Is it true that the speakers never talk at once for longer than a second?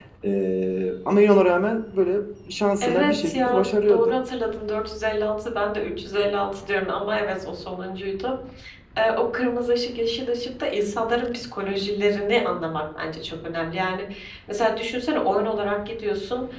No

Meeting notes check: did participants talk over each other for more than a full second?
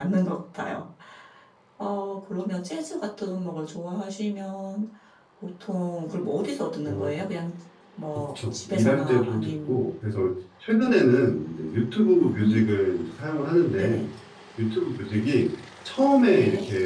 Yes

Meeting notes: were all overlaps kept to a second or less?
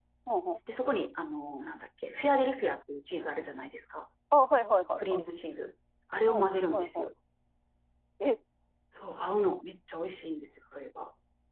Yes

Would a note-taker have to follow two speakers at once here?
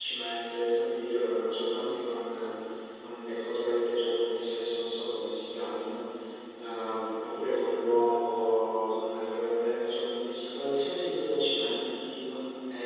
No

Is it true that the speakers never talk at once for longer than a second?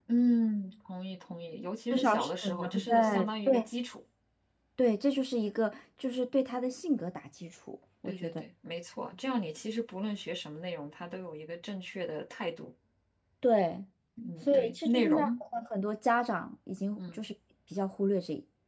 No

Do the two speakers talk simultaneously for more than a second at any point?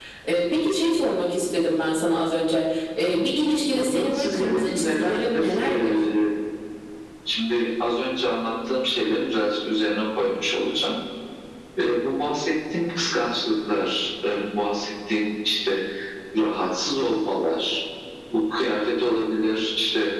Yes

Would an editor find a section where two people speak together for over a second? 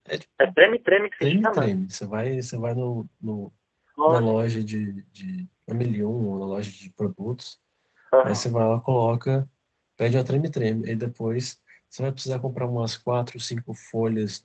No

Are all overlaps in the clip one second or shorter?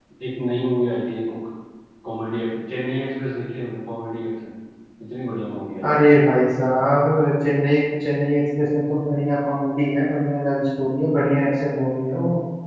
Yes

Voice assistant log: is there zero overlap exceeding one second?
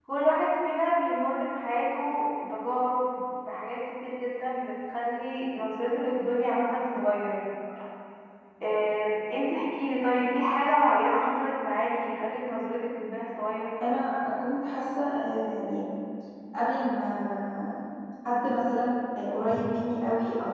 Yes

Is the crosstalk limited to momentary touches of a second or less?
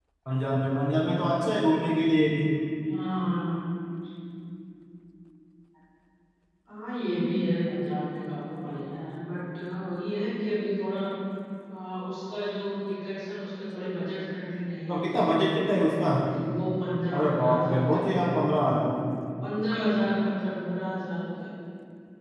No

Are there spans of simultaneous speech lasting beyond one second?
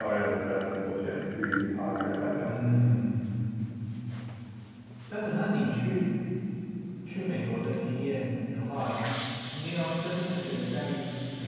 No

